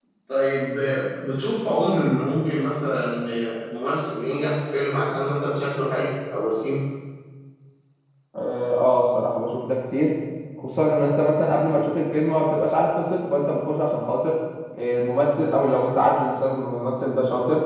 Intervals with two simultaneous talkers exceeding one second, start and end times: none

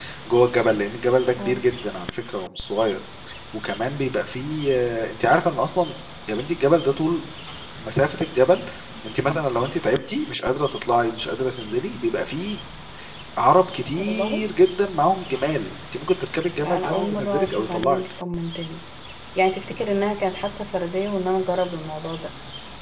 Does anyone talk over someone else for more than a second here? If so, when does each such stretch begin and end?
16.6-18.0

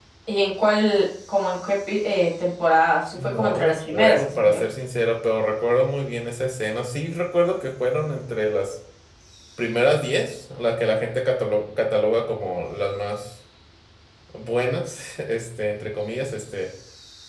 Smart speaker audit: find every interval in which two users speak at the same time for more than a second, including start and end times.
3.2-4.6

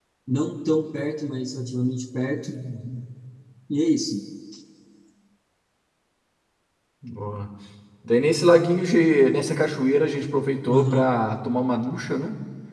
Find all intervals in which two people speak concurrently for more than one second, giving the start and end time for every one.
none

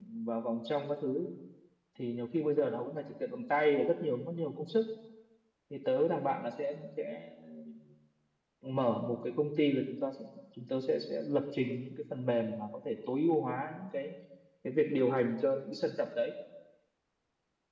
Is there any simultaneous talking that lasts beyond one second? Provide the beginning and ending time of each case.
none

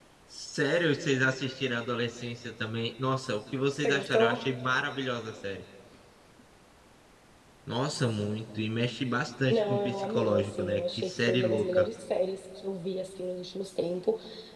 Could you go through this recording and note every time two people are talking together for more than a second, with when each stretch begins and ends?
9.5-11.9

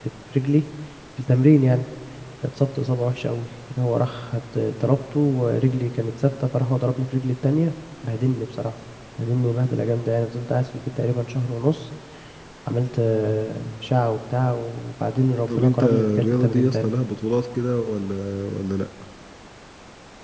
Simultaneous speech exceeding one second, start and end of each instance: 15.5-16.9

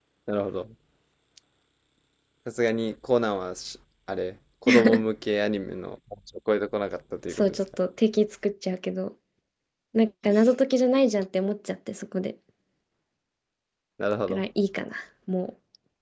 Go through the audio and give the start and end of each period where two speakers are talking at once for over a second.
none

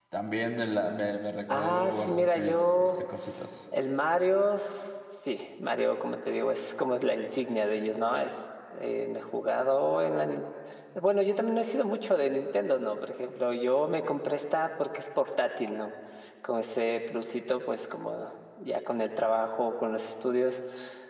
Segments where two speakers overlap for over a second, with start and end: 1.5-2.9

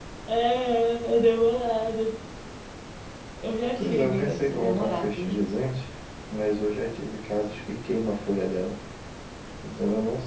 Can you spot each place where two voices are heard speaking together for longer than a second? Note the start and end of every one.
3.8-5.5

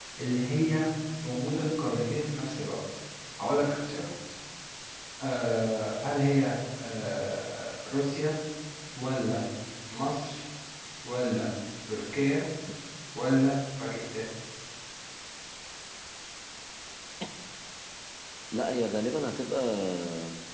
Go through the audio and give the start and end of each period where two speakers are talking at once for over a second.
none

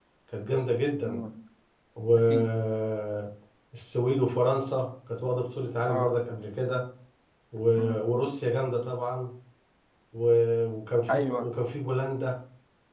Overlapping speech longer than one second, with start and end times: none

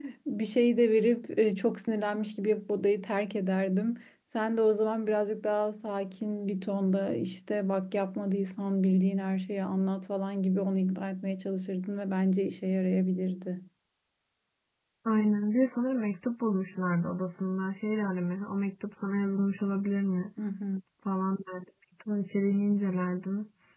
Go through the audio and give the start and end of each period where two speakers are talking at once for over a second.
none

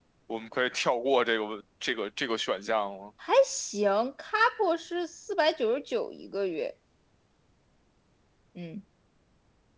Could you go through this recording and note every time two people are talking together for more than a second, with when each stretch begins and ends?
none

